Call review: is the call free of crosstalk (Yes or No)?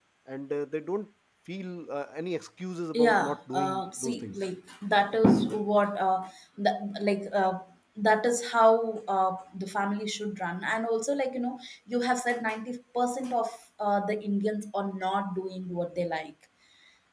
No